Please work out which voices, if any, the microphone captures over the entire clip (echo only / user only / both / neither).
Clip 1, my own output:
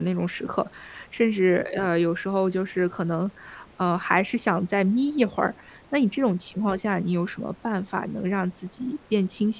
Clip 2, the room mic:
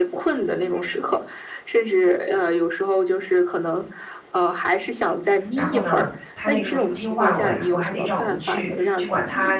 both